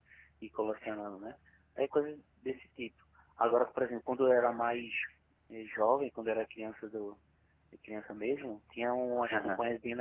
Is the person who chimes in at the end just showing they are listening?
Yes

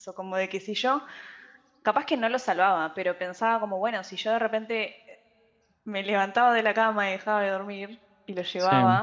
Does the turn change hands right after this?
No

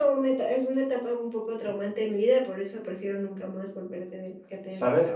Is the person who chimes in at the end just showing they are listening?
No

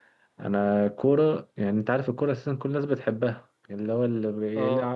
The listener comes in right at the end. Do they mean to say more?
No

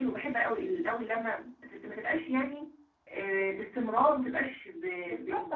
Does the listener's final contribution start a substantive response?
Yes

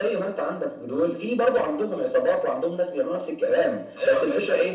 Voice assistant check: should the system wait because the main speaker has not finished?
No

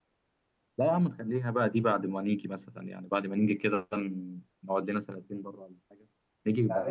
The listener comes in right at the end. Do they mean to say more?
Yes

